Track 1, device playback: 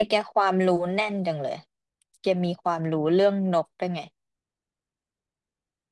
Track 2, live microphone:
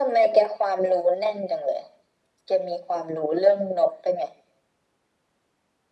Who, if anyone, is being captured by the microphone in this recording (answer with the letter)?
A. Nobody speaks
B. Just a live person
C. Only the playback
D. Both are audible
C